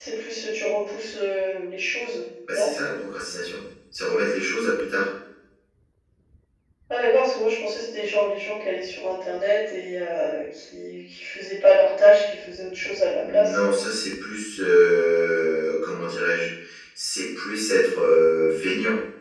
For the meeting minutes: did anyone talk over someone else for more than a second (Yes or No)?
No